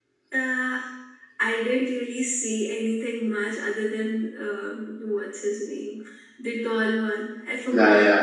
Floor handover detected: Yes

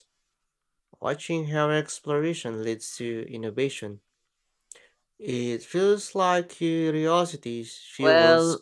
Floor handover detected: Yes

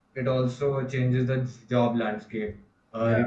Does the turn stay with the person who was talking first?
Yes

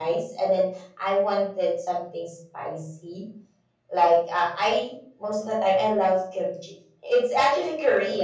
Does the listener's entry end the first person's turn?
No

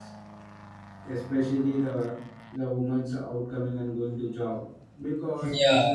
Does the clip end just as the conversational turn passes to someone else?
Yes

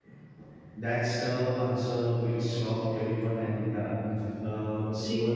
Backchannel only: Yes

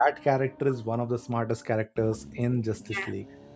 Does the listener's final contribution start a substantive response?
Yes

